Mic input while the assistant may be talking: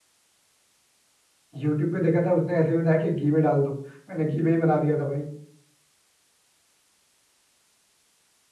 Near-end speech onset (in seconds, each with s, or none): 1.6 s